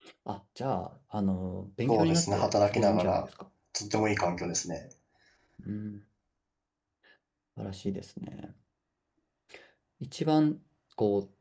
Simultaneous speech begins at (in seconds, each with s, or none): 1.9 s